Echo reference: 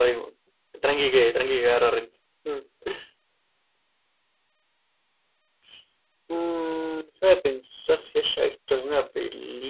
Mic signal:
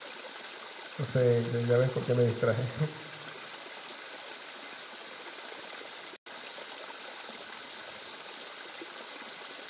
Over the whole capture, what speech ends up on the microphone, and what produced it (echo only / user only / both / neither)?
user only